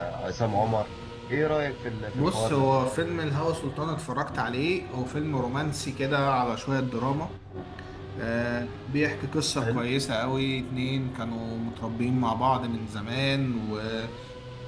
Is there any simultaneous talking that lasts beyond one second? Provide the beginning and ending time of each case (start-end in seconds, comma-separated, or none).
none